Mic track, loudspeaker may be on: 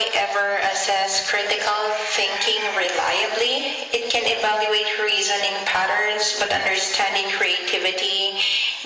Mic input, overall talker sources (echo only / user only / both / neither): echo only